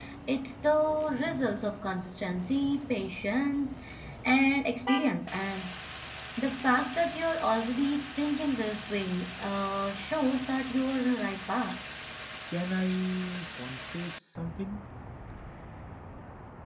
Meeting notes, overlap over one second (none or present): none